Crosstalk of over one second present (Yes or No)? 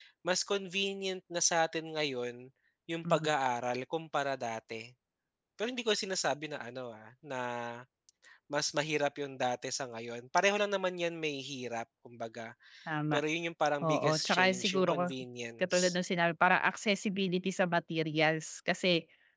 Yes